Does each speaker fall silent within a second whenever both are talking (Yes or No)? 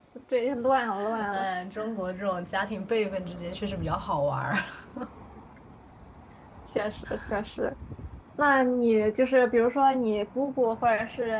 Yes